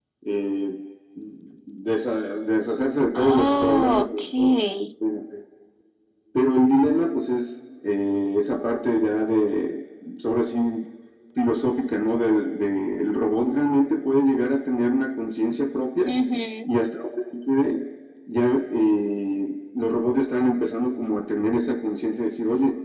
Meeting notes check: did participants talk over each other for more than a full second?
Yes, from 3.1 s

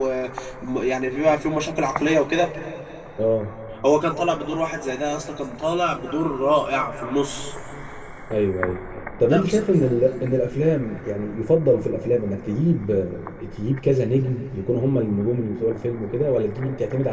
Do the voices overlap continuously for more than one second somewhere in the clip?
No

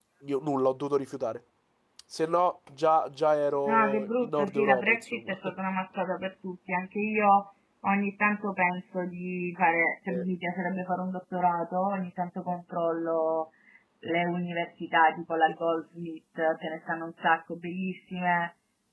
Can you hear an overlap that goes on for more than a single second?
Yes, from 3.7 s

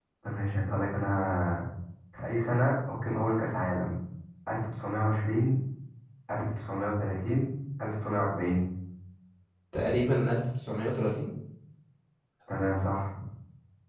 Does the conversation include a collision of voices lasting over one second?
No

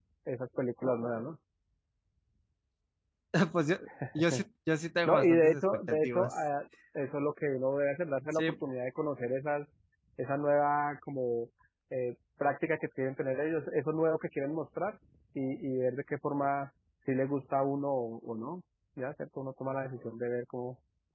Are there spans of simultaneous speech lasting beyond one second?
Yes, from 5.0 s

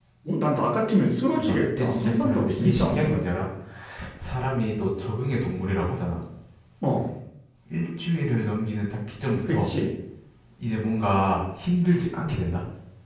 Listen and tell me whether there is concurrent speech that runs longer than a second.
Yes, from 1.3 s

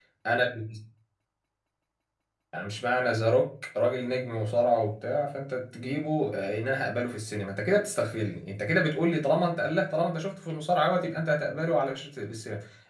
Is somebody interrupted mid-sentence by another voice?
No

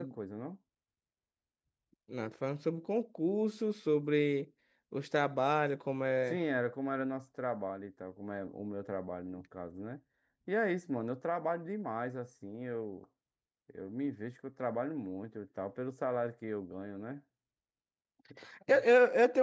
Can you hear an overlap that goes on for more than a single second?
No

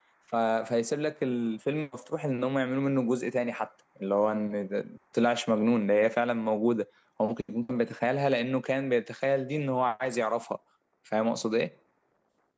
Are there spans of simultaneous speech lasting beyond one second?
No

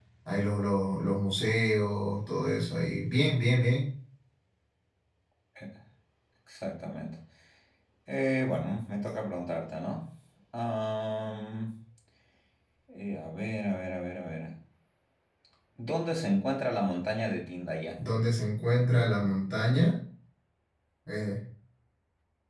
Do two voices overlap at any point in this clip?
No

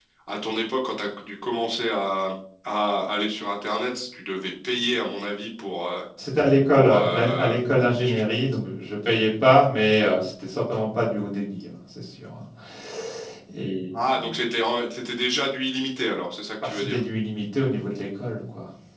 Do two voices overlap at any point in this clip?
Yes, from 6.7 s

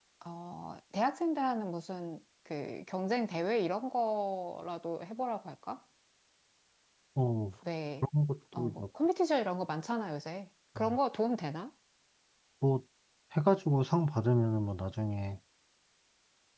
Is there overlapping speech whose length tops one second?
No

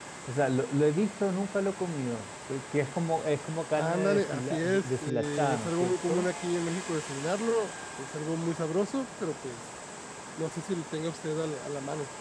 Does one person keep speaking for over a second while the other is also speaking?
Yes, from 3.7 s

